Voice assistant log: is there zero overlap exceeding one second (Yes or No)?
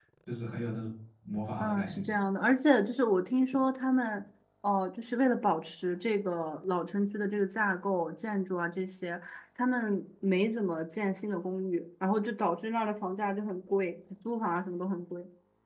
Yes